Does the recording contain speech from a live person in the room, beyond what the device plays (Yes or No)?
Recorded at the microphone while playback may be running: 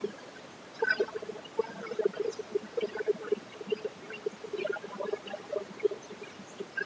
No